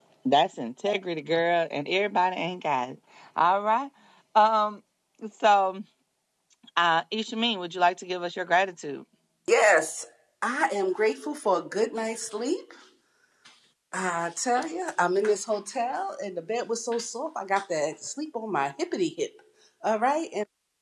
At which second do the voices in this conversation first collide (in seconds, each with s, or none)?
none